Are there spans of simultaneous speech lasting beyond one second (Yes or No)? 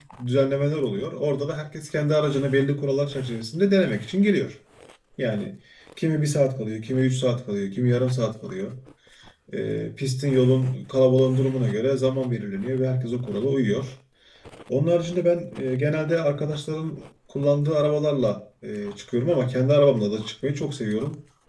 No